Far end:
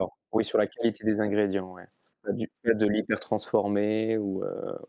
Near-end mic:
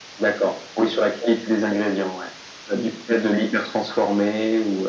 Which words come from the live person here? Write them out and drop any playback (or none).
none